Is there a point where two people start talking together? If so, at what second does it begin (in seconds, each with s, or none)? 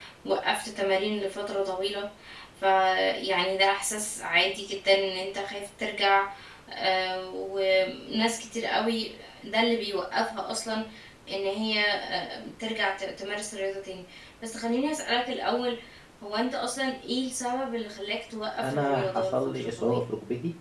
18.6 s